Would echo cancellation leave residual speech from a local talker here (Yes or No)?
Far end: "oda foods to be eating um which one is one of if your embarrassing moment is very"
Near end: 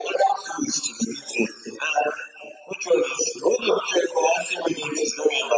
No